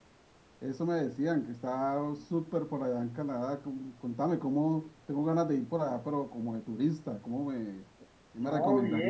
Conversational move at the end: taking over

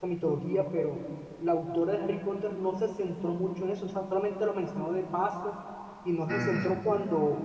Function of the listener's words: listening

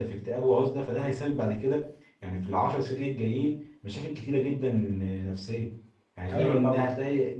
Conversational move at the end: listening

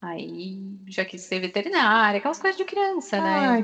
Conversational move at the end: taking over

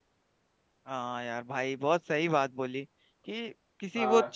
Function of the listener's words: listening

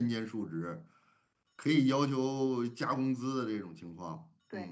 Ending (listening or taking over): taking over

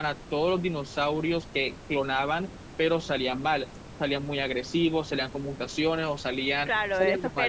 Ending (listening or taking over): taking over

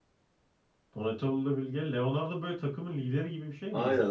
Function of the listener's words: taking over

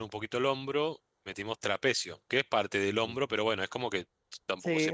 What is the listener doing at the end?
taking over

